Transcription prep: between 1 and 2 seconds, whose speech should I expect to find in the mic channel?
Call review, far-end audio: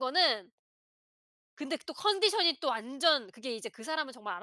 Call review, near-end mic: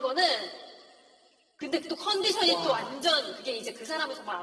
echo only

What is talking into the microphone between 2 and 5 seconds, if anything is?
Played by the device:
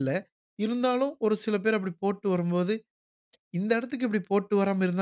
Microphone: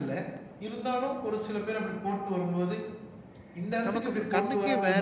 both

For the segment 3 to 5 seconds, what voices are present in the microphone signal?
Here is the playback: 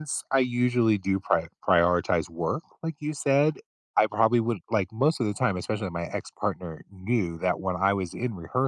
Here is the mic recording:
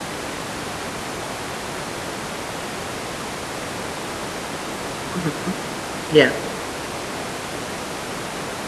neither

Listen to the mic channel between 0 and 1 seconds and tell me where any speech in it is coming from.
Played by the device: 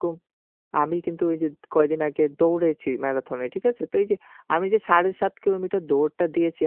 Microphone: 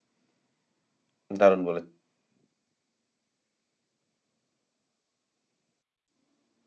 neither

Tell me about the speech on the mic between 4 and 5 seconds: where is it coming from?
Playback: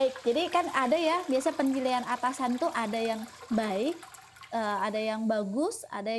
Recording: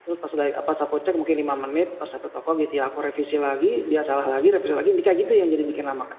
user only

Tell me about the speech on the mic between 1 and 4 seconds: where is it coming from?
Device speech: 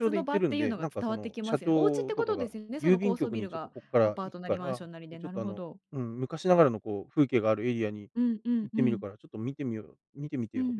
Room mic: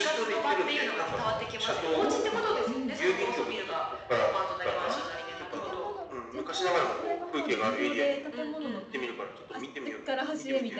both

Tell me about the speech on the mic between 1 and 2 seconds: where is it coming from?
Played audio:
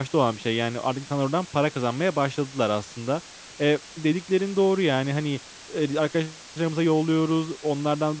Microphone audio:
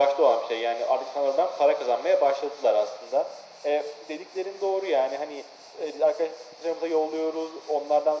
echo only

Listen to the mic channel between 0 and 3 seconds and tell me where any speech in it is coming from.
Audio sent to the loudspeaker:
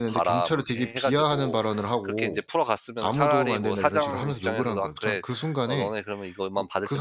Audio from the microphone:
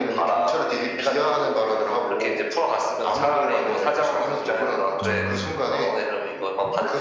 echo only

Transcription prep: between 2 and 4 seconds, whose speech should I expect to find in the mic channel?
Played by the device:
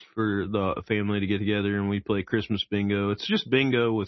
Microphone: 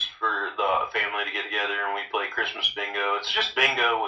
echo only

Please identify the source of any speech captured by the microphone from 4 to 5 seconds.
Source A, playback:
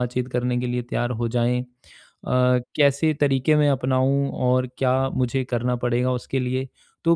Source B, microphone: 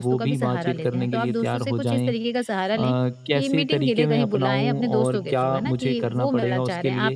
both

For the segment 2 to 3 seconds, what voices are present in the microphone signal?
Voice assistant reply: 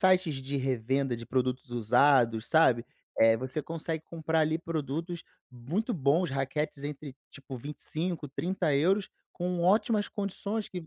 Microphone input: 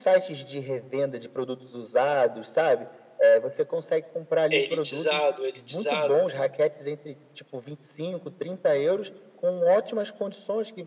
echo only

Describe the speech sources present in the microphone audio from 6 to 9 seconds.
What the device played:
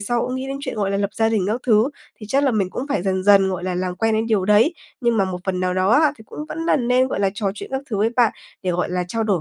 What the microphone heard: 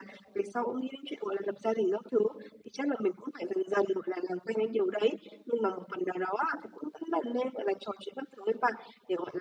echo only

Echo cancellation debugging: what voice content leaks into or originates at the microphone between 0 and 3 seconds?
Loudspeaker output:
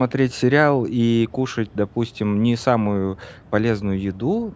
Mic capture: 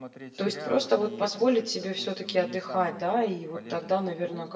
both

